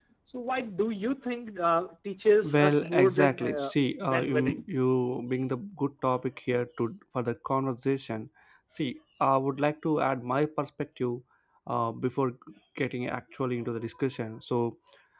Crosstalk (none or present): present